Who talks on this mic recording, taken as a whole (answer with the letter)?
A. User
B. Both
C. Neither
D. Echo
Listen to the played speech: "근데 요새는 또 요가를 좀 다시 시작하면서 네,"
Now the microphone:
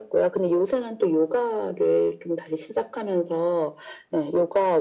D